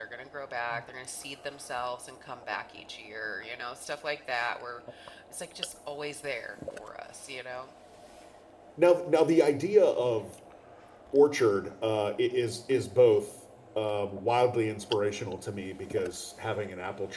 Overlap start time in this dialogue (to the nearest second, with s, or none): none